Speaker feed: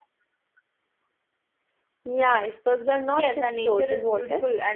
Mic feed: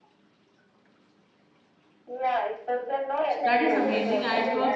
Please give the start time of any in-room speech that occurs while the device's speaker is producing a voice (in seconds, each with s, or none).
3.3 s